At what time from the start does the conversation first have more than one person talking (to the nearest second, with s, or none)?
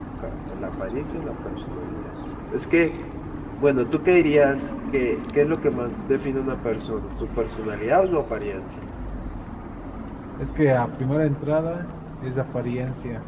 none